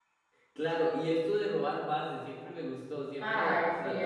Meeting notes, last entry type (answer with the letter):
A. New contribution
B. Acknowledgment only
A